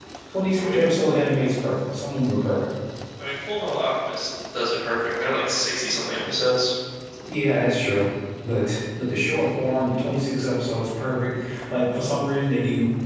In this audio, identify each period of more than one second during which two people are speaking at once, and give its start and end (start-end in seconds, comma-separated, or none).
none